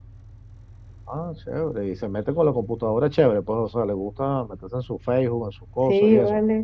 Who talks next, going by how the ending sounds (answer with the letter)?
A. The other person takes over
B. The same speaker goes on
A